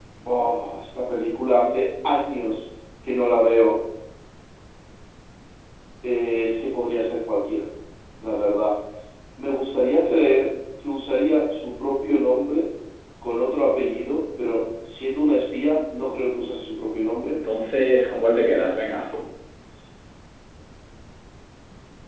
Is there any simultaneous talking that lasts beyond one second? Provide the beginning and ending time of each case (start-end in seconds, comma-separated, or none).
none